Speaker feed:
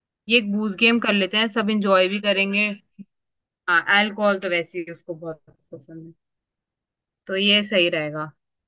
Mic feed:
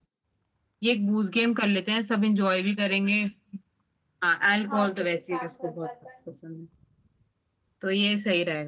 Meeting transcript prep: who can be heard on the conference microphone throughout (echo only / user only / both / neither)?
both